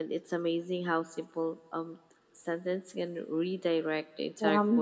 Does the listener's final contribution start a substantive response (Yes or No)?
Yes